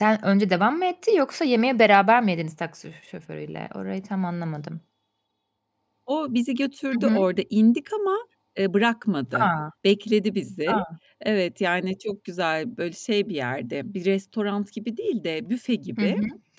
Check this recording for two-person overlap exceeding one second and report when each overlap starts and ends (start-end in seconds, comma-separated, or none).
none